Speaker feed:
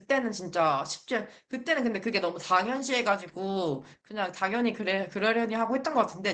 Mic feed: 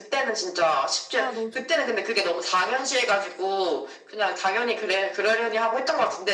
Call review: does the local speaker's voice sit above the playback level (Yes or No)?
No